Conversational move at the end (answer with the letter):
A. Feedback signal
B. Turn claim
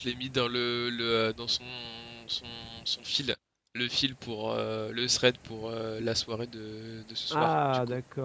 B